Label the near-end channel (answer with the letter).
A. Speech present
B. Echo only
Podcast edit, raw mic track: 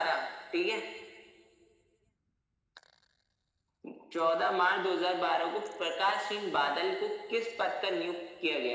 B